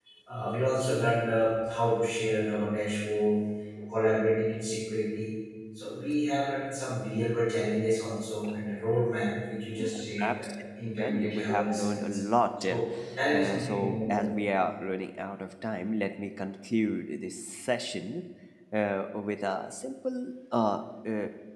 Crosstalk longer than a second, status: present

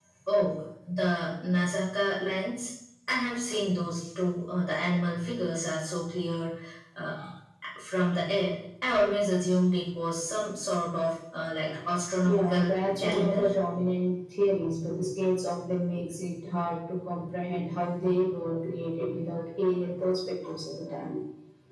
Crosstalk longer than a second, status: present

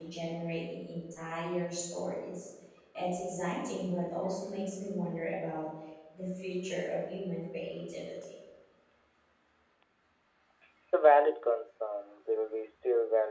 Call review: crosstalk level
none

